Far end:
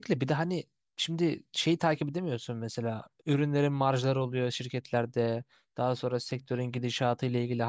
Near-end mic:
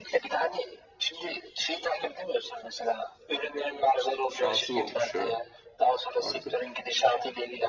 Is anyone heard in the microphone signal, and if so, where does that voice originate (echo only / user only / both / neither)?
both